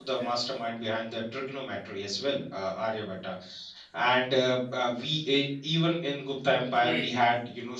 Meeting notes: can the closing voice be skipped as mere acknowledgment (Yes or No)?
Yes